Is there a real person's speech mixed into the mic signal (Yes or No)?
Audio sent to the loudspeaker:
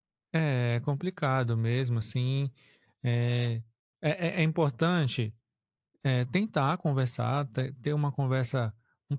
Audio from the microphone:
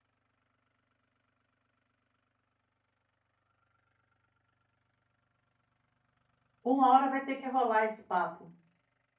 Yes